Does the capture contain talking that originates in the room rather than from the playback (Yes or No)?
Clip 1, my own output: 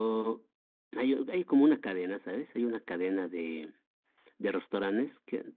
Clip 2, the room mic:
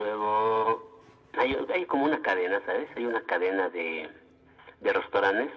No